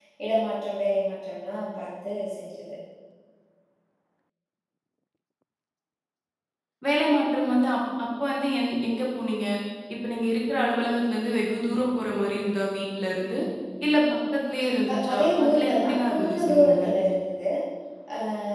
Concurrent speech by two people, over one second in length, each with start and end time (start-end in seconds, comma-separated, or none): 14.6-16.9